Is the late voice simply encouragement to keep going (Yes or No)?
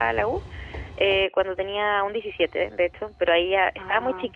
Yes